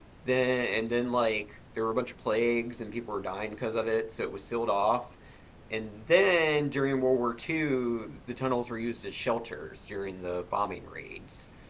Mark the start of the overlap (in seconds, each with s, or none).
none